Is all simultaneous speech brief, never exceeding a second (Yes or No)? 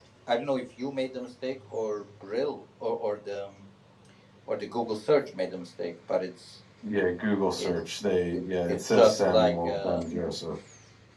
No